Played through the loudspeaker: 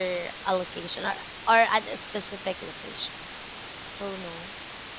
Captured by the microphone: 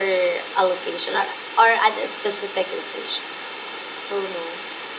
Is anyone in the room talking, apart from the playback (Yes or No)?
No